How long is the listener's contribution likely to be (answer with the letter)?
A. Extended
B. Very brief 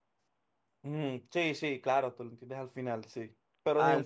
B